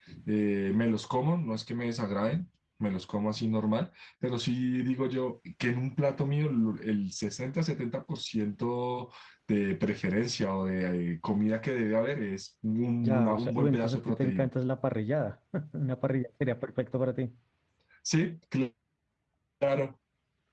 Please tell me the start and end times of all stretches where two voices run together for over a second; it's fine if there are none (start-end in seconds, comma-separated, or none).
13.0-14.5